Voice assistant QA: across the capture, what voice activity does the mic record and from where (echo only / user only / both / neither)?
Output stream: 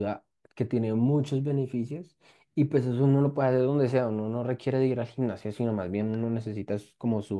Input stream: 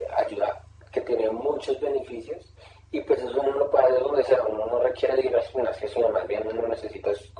echo only